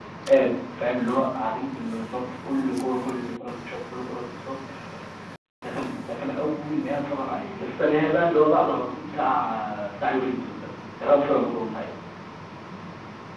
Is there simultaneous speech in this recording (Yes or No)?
No